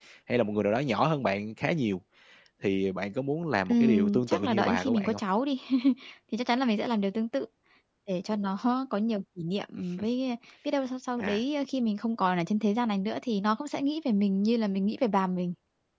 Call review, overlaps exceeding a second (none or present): present